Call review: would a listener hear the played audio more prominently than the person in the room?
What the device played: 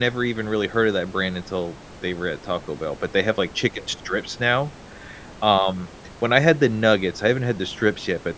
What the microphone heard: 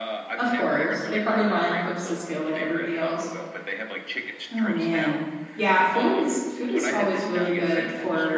No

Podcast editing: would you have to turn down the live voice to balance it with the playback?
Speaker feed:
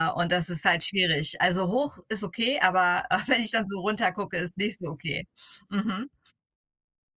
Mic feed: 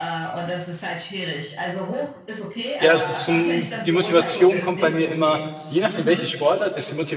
Yes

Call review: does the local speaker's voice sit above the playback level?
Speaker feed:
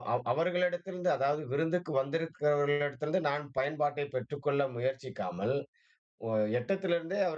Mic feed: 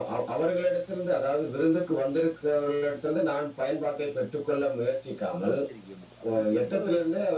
No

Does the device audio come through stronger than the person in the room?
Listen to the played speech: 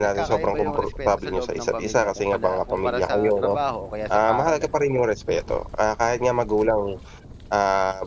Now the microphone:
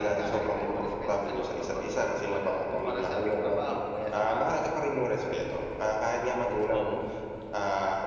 Yes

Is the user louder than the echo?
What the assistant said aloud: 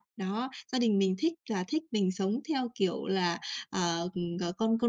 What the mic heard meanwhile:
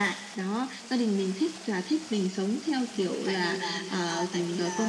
No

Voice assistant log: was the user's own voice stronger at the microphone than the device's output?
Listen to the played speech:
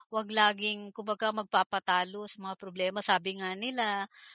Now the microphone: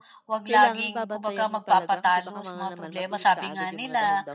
No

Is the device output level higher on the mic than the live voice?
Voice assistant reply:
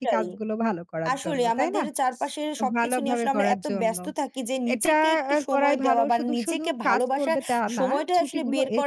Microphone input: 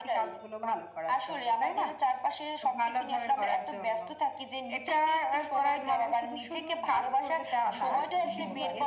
Yes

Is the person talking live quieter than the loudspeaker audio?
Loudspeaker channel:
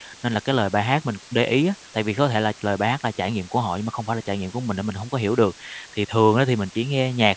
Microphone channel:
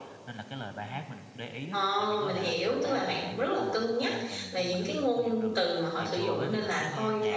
No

